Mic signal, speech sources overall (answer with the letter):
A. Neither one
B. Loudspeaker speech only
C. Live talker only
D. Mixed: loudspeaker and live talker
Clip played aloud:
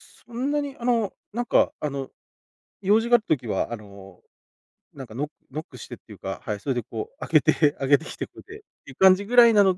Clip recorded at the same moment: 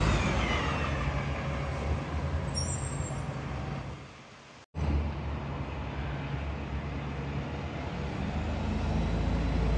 A